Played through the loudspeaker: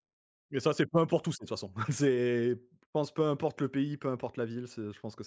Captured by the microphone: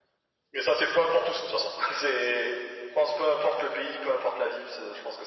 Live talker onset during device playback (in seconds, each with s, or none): none